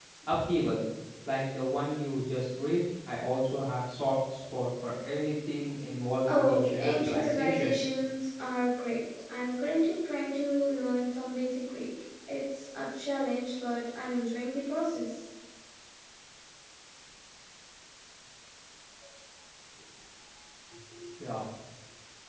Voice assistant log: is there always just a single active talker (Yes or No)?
No